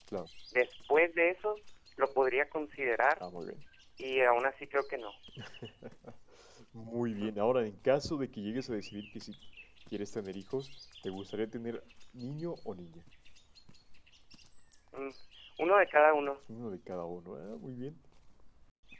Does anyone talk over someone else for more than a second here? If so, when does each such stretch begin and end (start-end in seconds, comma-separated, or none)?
none